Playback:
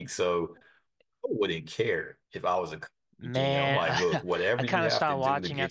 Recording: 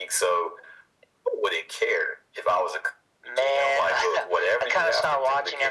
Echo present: Yes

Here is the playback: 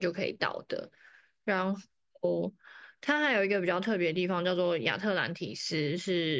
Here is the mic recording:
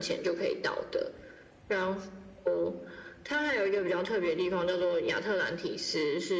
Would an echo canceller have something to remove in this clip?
Yes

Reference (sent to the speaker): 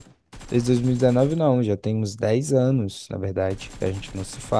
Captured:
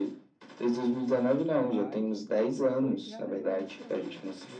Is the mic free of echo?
No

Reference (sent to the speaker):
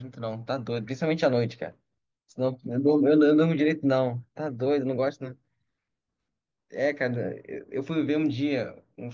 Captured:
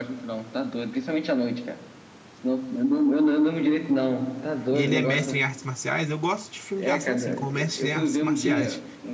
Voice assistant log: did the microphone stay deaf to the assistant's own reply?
No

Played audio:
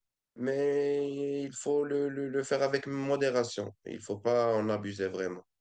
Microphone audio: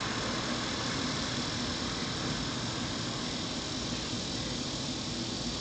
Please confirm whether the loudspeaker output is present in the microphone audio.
No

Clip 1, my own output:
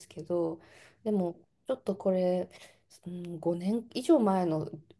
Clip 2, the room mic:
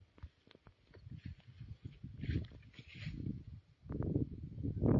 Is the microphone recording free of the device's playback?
Yes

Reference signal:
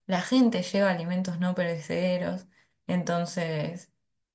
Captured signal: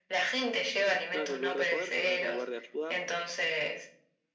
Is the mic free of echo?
No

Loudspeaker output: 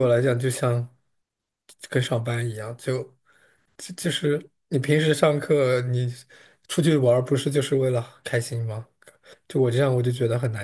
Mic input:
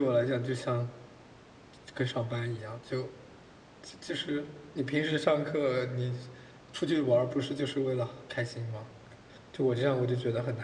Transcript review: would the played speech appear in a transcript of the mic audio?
Yes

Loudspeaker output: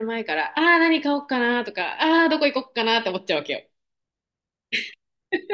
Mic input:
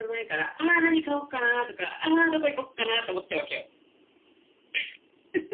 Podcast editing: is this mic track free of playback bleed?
No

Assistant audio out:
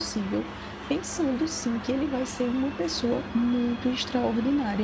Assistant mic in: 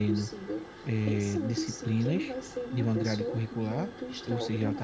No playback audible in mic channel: No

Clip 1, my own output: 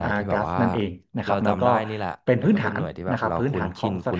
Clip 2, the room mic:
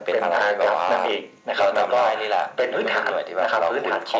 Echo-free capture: No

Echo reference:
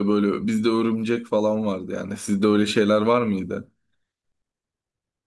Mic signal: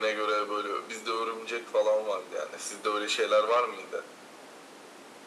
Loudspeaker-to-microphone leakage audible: Yes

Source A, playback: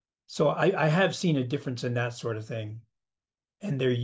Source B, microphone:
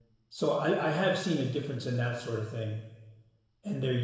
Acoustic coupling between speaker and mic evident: Yes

